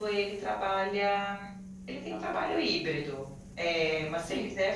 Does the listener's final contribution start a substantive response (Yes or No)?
No